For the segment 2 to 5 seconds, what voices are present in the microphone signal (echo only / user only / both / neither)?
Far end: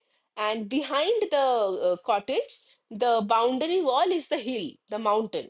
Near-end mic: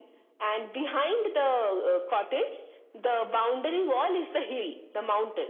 echo only